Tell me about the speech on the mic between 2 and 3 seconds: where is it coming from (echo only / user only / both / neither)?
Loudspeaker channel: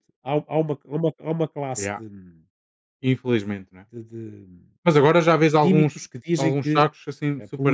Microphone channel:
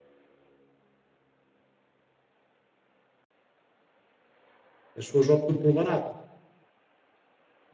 neither